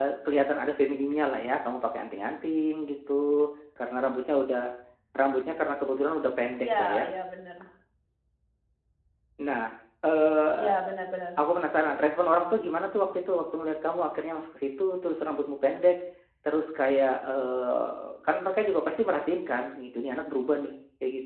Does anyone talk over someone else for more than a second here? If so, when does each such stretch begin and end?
none

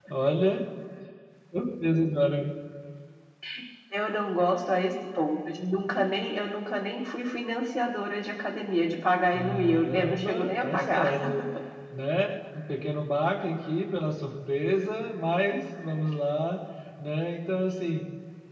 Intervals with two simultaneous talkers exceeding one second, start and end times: 9.3-11.1

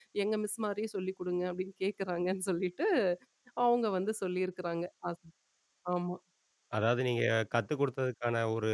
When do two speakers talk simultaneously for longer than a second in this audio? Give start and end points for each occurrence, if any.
none

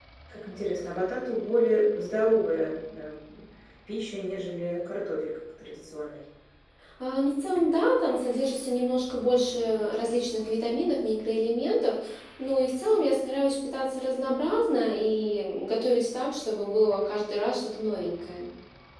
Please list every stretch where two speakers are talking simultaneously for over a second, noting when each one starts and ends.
none

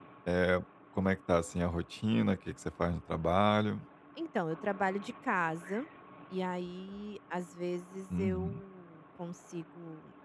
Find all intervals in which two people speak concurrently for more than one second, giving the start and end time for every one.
none

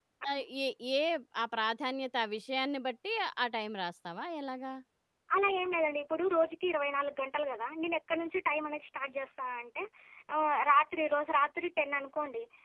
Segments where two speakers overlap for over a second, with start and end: none

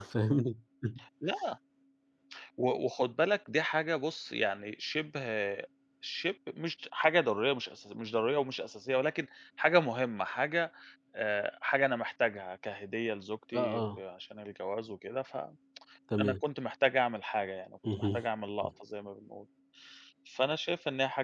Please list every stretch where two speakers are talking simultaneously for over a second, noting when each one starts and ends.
none

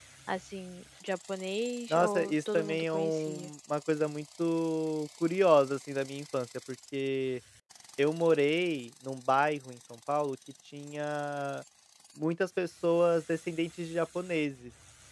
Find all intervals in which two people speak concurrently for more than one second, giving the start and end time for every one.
1.9-3.5

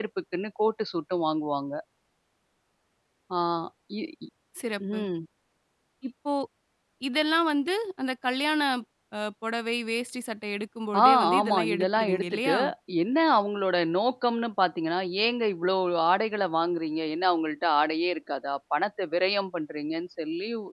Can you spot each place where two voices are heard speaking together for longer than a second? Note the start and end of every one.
11.0-12.5

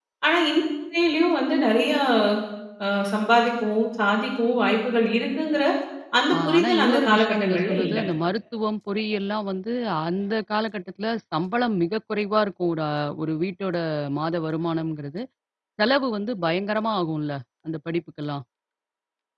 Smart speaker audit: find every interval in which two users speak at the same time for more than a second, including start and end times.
6.3-8.0

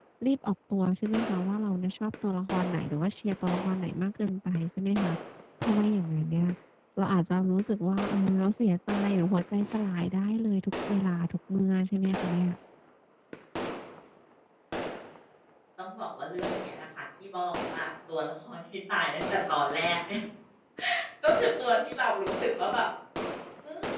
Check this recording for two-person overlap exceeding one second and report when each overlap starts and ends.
none

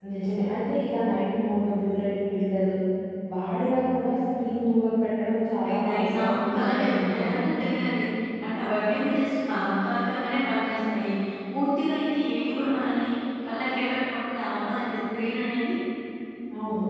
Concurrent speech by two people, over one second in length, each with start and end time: 5.7-7.4

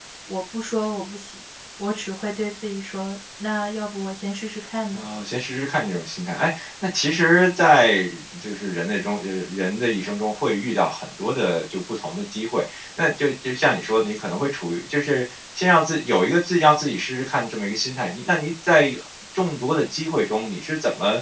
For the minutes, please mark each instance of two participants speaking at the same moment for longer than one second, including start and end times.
none

